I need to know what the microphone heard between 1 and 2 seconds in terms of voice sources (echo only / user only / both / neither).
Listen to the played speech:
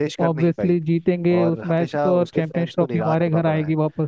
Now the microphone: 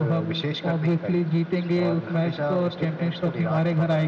echo only